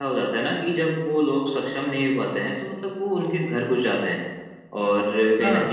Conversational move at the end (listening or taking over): listening